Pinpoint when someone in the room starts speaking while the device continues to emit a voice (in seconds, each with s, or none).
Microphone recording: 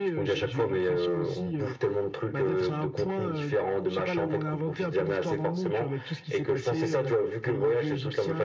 none